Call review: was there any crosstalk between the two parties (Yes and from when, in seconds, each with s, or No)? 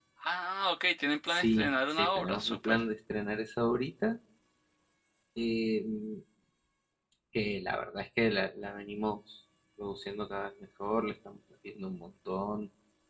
Yes, from 1.3 s